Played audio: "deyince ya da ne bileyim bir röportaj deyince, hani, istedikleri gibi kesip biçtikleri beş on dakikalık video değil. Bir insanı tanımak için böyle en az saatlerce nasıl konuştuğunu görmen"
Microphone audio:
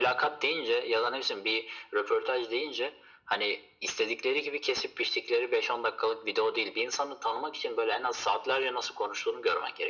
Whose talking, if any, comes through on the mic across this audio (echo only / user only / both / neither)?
echo only